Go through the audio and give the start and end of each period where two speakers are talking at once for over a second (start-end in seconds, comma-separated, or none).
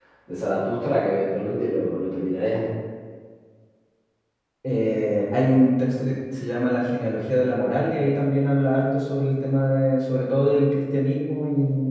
none